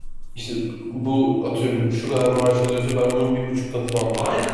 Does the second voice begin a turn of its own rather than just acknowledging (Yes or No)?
No